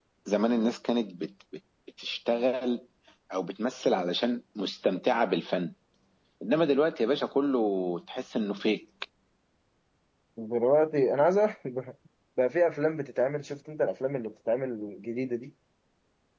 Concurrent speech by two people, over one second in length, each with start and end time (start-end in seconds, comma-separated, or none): none